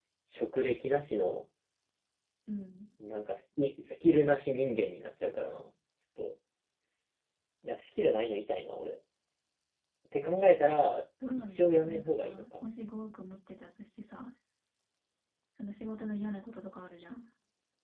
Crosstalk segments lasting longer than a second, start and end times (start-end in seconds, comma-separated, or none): 11.4-12.7